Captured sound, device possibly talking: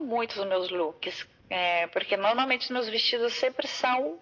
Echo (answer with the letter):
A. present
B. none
A